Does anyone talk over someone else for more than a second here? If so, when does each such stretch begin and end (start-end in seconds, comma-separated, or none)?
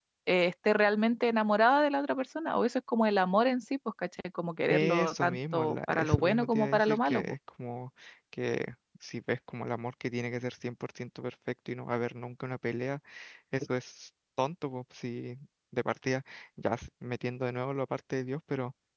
4.7-7.2